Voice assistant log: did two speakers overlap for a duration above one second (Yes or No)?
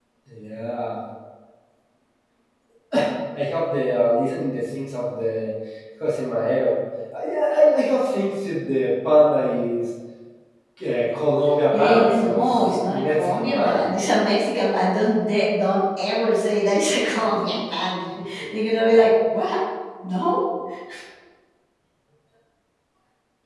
Yes